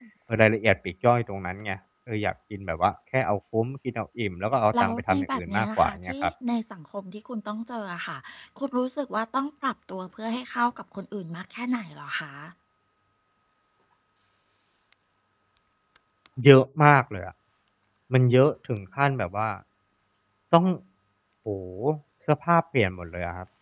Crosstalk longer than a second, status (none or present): present